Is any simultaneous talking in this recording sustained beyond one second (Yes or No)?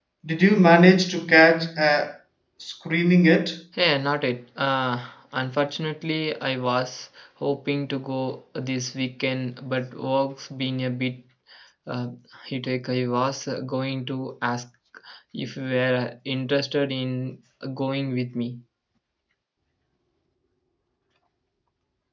No